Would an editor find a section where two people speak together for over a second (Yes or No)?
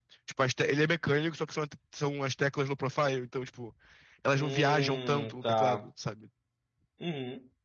Yes